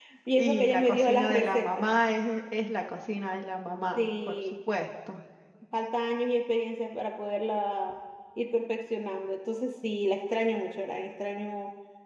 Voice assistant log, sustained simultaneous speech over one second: present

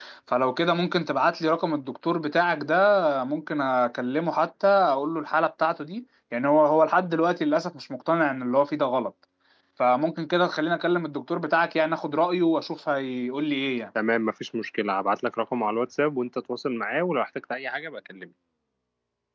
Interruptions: none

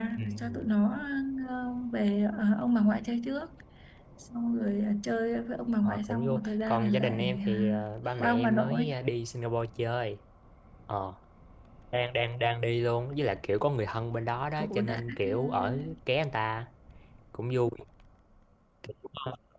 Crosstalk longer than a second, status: present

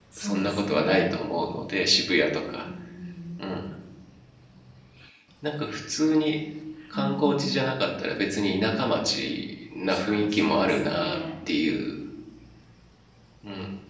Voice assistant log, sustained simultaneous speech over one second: present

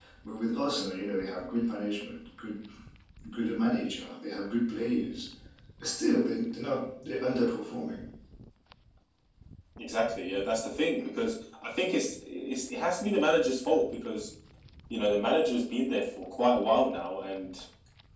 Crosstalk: none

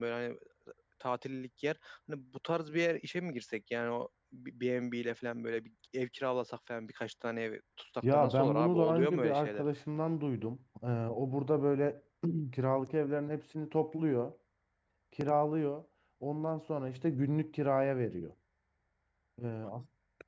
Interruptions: present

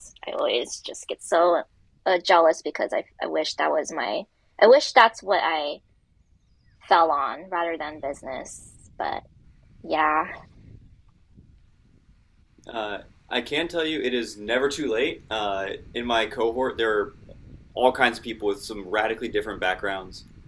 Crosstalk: none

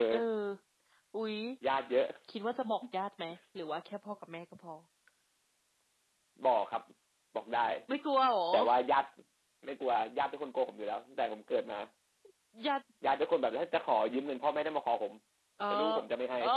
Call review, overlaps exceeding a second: none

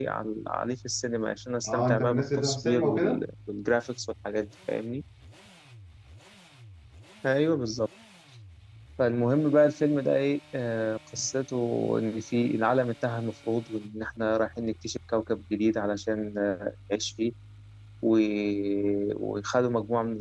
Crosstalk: present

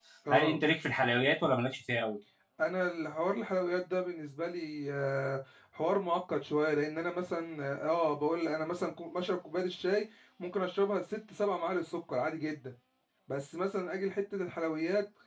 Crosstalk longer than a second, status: none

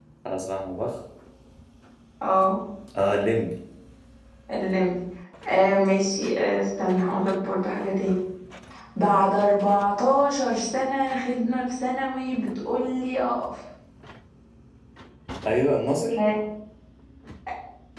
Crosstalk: none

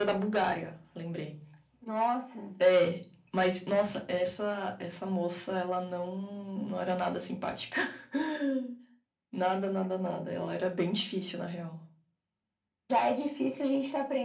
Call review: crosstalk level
none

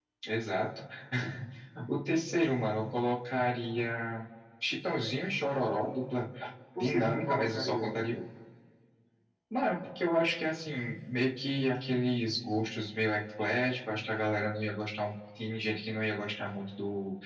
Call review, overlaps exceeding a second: present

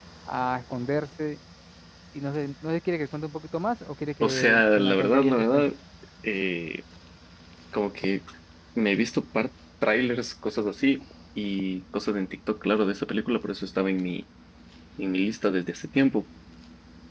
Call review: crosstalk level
present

